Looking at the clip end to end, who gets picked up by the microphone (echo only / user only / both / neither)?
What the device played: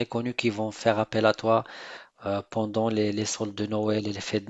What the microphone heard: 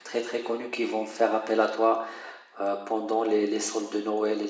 echo only